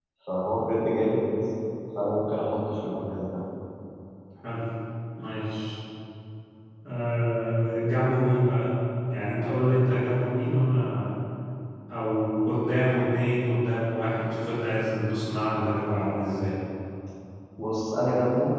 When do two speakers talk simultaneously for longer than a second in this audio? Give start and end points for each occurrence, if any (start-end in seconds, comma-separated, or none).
none